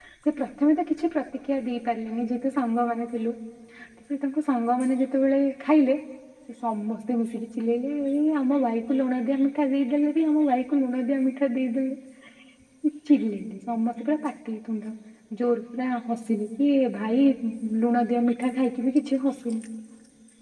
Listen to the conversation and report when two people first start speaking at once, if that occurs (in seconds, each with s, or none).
none